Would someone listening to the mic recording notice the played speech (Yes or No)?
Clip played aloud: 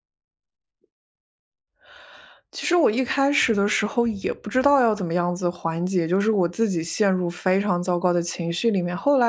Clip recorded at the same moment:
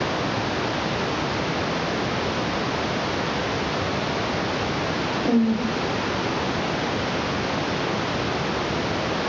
No